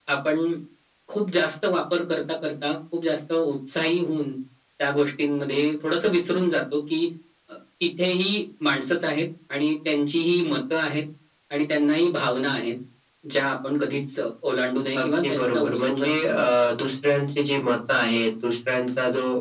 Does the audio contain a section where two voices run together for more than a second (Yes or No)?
Yes